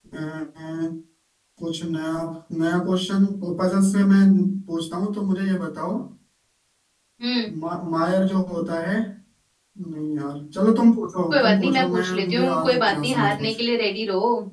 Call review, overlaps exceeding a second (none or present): present